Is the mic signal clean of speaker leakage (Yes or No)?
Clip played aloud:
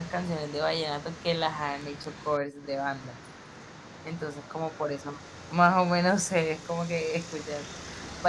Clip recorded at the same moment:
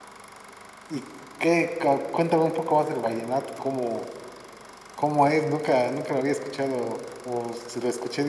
Yes